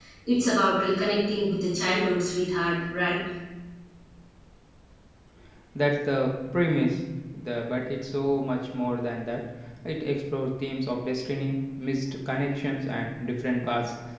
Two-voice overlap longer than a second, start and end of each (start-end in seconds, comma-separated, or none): none